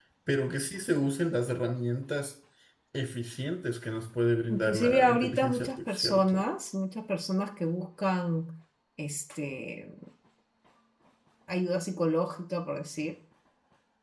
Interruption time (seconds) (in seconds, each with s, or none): 4.5 s